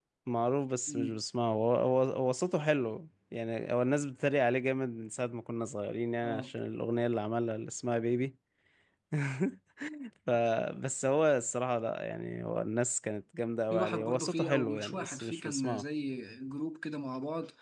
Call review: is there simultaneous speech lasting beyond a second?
Yes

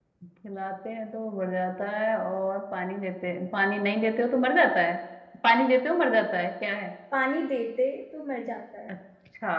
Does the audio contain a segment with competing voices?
No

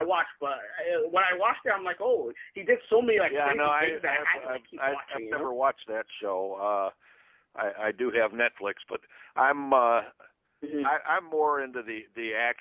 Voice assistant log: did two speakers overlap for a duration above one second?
Yes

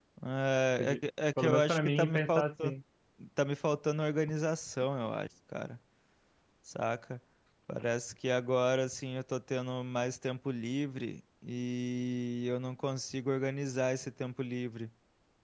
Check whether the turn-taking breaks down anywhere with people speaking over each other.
Yes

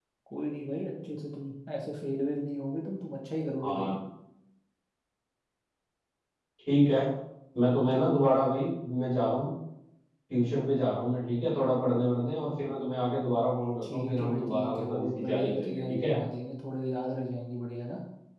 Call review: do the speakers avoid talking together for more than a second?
No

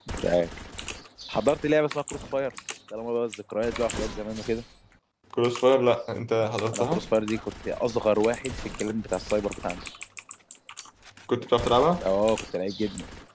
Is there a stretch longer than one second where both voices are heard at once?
No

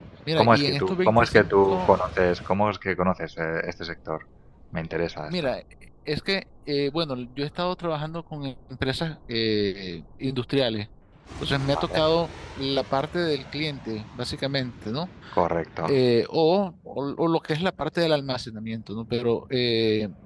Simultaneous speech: Yes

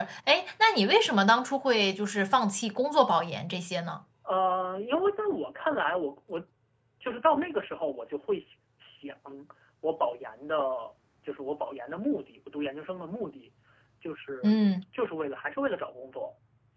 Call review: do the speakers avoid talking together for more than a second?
Yes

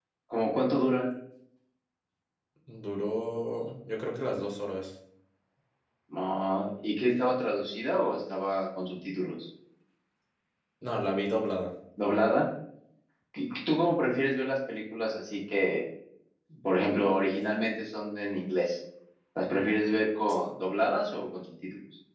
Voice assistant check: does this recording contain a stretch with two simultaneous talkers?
No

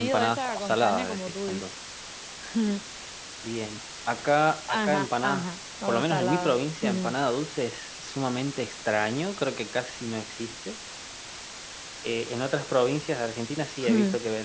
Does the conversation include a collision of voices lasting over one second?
Yes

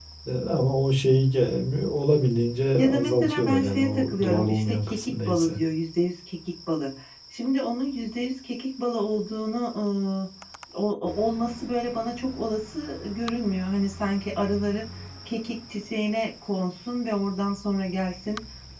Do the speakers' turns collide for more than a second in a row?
Yes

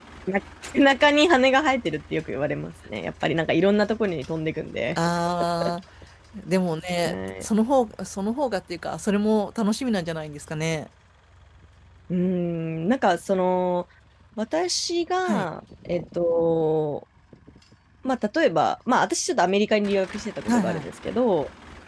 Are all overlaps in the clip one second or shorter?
Yes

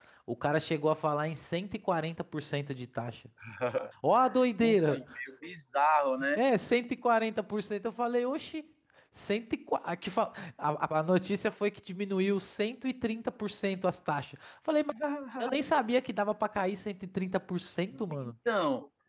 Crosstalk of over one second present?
No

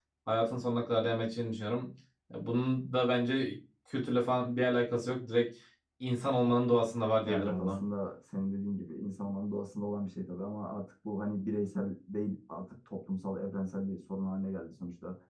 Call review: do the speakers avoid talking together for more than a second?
Yes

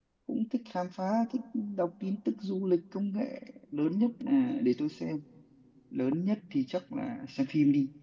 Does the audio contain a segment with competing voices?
No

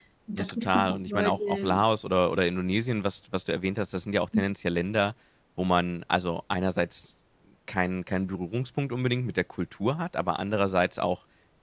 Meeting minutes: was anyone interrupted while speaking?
Yes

